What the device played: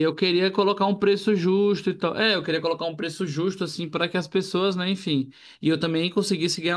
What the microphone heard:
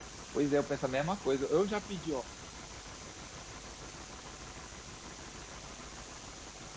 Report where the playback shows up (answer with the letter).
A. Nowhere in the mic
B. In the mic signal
A